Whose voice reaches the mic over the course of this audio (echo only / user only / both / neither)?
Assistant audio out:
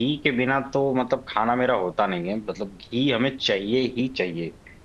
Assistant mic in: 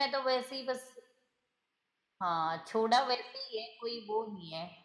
user only